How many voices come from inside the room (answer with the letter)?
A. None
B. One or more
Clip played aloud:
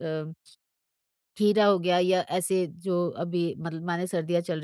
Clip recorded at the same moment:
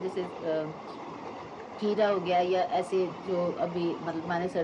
A